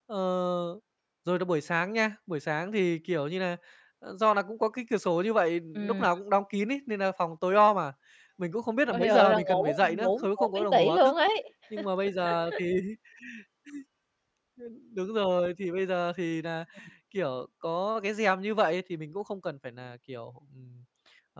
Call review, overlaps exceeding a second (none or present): present